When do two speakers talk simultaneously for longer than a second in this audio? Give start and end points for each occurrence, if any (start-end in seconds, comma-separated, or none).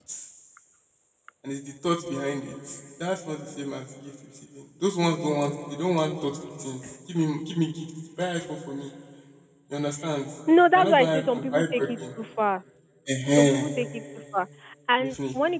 10.8-12.0